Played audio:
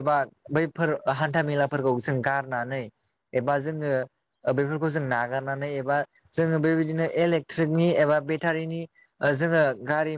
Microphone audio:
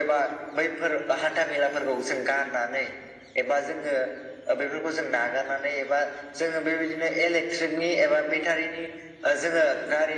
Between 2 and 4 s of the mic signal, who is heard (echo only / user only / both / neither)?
echo only